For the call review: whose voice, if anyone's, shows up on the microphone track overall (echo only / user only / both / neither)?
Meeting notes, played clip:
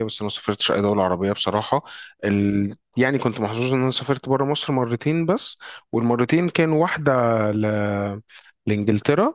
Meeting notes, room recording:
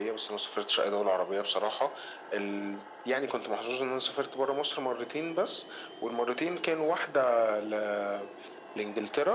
echo only